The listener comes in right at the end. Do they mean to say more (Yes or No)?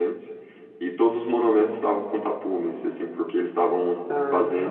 No